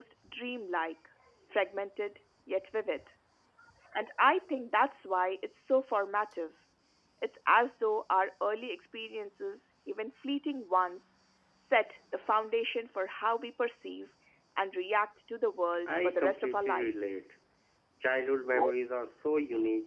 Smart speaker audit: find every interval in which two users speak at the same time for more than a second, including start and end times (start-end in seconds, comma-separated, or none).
15.9-17.2